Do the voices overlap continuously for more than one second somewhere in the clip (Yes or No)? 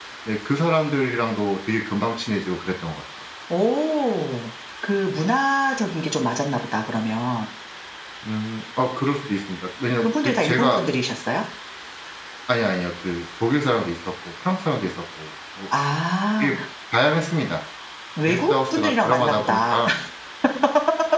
Yes